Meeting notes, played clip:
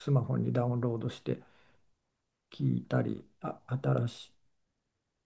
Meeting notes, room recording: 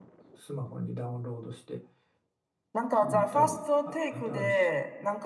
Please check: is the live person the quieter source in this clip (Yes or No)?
No